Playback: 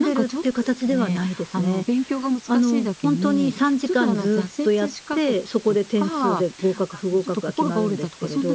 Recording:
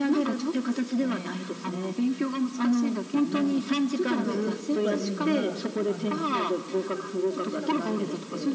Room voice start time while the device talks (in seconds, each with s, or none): 4.2 s